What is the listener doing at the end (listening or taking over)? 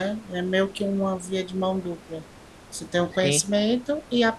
listening